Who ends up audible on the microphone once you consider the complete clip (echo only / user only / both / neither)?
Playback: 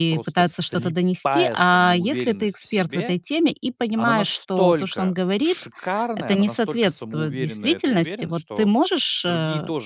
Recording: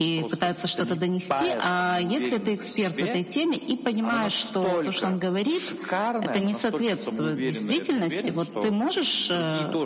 echo only